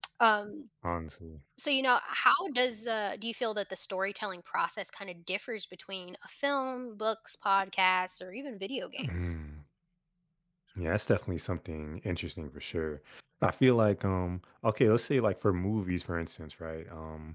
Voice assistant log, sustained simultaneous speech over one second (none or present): none